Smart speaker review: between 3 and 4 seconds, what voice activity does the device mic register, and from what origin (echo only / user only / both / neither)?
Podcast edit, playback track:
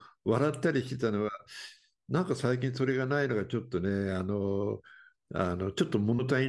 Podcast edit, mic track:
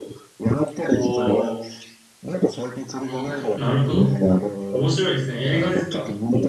both